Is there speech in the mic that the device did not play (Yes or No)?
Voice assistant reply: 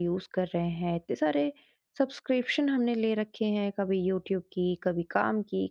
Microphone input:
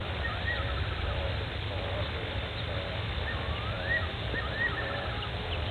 No